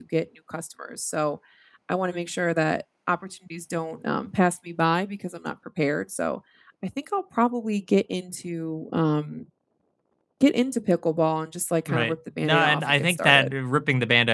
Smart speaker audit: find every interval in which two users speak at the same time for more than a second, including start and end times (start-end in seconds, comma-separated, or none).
11.9-13.5